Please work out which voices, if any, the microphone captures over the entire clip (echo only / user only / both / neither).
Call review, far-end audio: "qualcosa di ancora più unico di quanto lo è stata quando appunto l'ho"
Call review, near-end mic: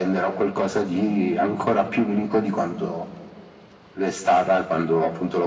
echo only